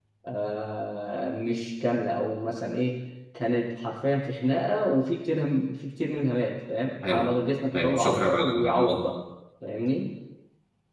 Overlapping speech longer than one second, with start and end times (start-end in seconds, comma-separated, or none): 7.7-9.0